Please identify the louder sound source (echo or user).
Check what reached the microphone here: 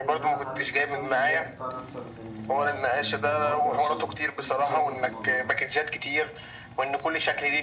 echo